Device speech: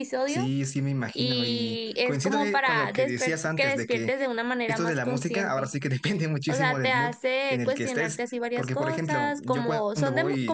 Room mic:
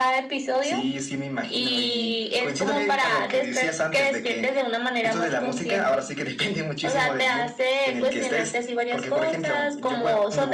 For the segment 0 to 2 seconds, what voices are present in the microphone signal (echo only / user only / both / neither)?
echo only